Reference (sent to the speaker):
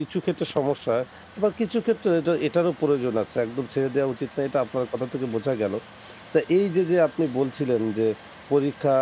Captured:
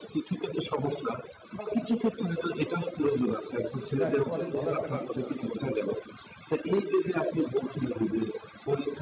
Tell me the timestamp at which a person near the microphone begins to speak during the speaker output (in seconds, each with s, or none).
4.0 s